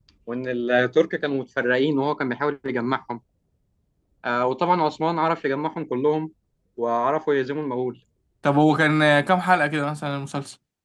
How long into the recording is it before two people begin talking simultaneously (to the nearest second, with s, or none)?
none